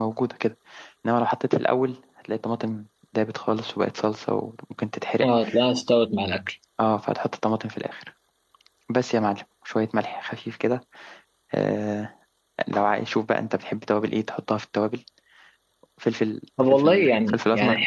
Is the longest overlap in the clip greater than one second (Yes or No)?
Yes